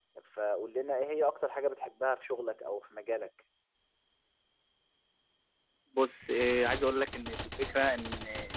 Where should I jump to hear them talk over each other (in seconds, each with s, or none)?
none